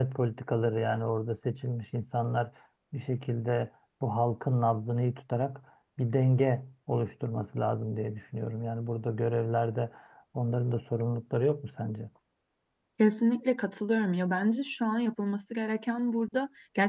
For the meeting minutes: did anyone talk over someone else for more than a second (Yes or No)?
No